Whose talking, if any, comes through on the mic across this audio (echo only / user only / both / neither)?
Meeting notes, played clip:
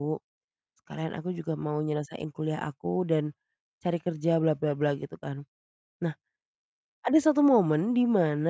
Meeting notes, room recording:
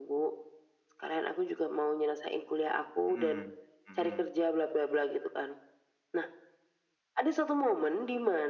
both